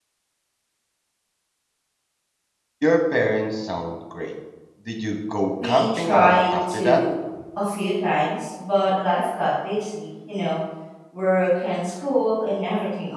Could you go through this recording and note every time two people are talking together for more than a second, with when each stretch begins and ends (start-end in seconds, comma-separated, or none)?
5.5-7.0